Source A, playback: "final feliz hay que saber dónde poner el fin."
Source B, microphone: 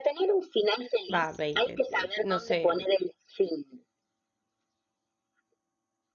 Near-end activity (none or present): present